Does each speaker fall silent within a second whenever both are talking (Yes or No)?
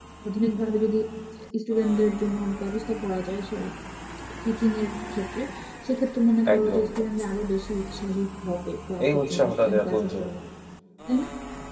No